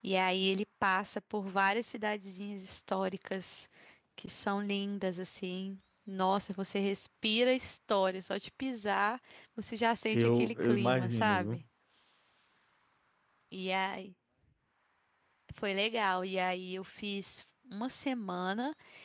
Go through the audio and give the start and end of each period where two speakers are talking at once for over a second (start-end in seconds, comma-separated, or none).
10.1-11.6